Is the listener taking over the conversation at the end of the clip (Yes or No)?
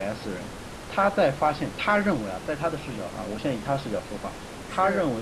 No